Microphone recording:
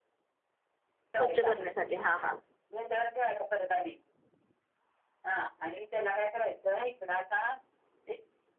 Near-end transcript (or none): स्वच्छ करण्यासाठी, हा- हा